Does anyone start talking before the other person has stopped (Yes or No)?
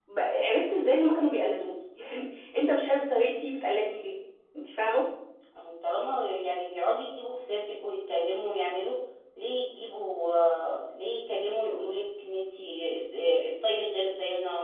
No